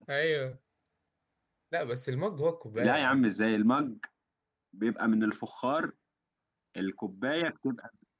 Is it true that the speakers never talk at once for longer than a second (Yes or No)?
Yes